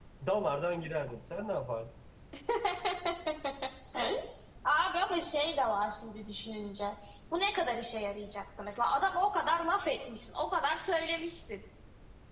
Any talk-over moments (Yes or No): No